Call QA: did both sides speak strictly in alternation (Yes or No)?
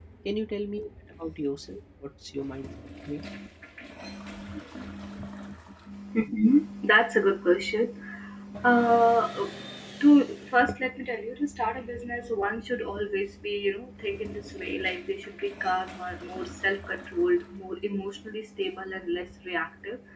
Yes